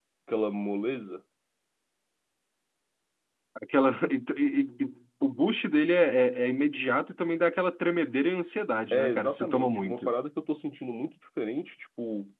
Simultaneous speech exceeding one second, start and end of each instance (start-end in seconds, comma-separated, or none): 8.9-10.1